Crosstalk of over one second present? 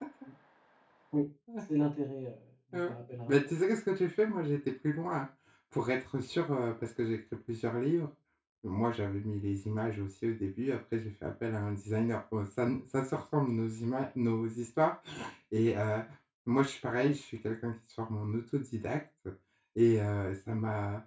No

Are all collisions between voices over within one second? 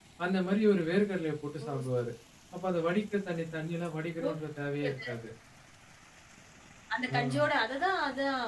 Yes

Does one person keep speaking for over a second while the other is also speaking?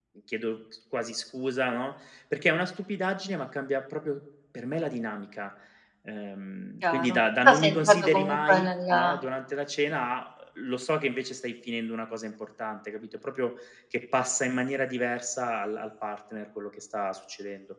Yes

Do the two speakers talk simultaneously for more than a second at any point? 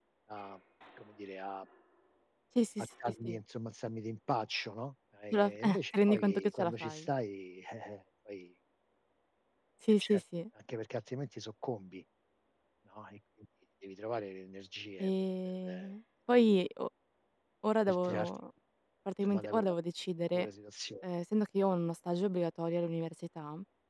Yes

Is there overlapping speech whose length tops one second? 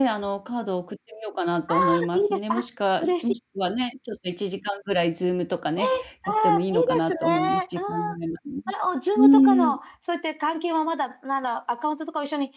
Yes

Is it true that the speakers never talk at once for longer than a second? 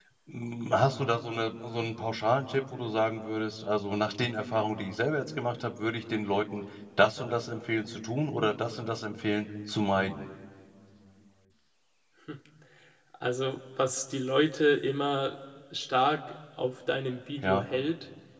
Yes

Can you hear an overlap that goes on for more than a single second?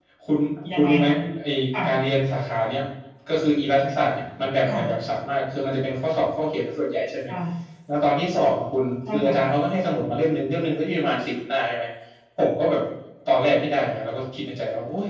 No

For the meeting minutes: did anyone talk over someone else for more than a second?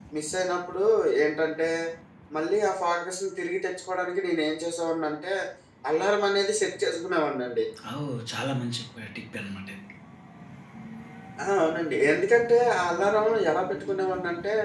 No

